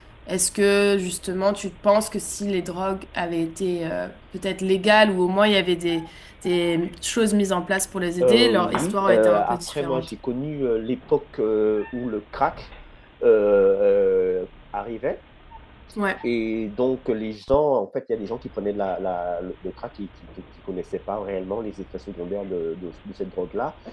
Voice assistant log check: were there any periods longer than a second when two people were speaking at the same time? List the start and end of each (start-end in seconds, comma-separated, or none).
8.2-10.1